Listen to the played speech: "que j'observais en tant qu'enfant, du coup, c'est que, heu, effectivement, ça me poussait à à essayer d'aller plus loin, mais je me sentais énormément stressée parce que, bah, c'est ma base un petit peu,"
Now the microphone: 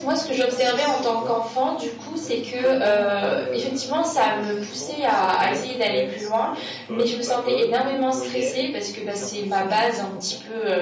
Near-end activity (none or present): present